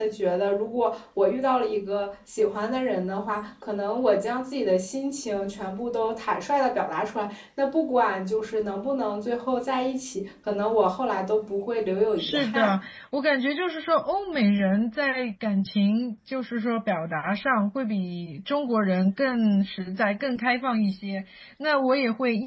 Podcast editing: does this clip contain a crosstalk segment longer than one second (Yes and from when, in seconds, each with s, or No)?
No